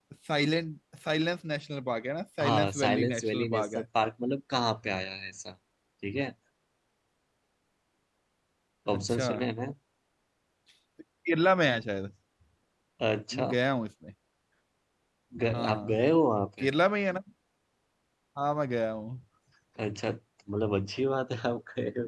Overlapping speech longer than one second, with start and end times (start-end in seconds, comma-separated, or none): 2.4-3.8